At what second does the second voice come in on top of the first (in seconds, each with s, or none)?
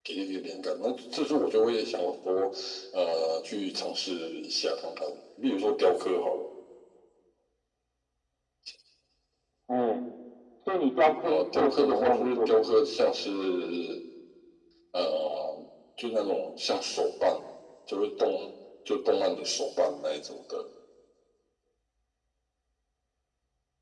11.2 s